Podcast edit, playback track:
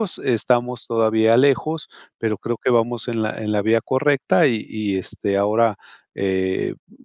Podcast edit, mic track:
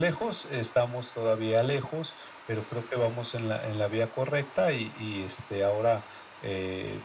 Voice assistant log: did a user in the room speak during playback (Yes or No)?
No